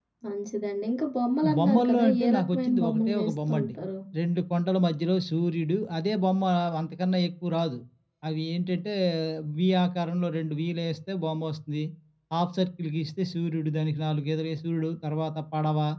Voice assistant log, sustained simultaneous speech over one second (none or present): present